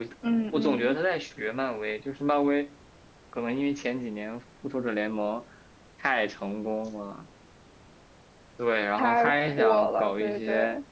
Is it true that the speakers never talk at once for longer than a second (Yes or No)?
No